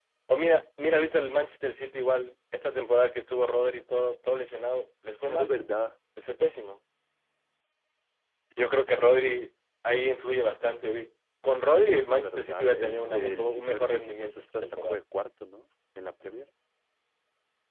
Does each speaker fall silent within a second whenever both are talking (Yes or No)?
No